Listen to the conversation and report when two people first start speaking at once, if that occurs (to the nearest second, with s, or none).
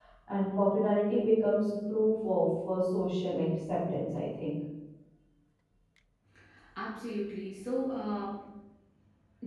none